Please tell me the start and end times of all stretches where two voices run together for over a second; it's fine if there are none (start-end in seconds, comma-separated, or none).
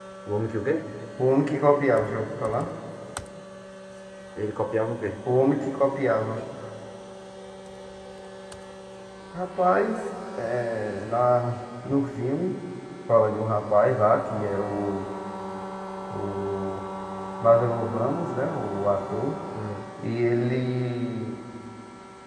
none